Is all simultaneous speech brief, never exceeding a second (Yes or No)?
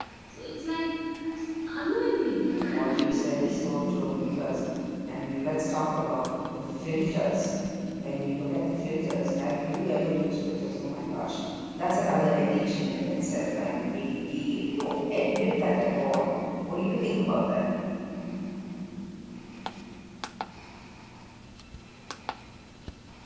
No